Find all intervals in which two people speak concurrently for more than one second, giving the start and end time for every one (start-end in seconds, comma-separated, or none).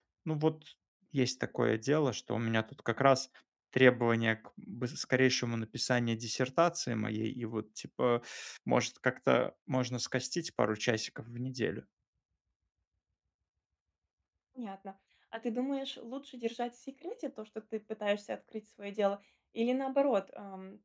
none